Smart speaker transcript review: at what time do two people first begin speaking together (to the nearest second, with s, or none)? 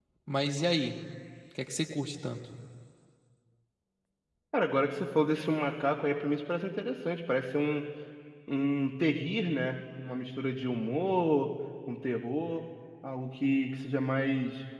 none